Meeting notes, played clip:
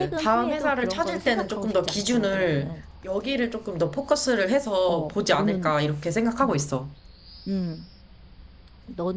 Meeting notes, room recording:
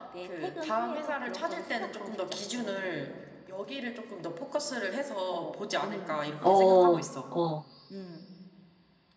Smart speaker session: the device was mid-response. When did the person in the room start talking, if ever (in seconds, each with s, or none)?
6.4 s